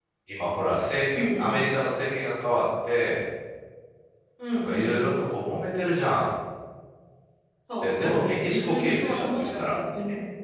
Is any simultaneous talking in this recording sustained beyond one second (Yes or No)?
Yes